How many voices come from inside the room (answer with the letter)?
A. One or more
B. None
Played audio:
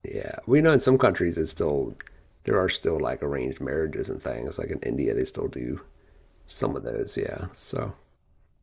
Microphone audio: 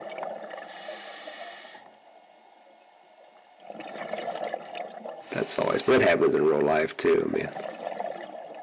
A